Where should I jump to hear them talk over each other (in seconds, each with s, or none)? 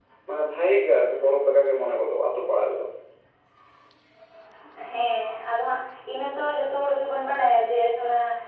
none